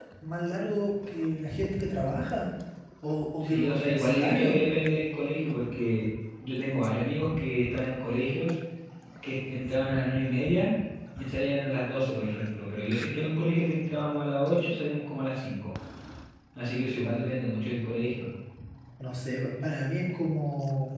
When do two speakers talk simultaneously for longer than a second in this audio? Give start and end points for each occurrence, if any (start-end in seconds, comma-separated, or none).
3.4-4.6